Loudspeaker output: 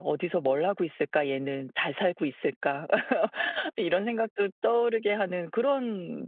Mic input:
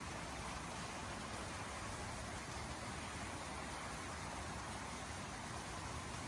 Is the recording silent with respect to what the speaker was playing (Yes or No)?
Yes